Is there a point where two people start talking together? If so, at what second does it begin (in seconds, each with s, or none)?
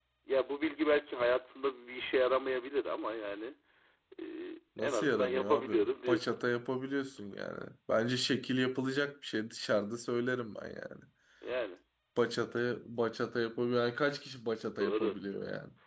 4.8 s